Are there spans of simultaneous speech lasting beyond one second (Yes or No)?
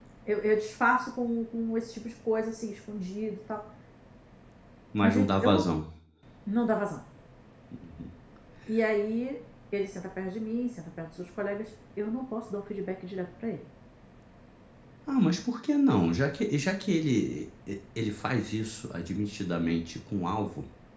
No